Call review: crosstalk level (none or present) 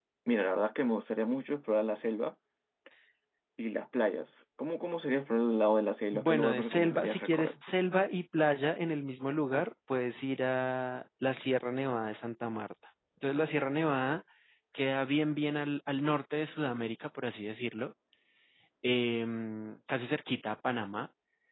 present